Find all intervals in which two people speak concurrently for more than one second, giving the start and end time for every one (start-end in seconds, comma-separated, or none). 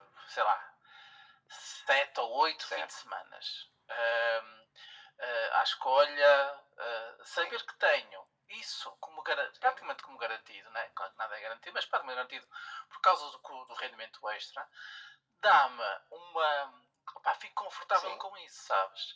none